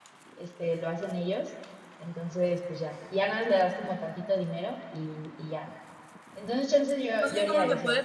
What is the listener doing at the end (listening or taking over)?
taking over